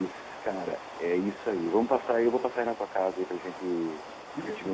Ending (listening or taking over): taking over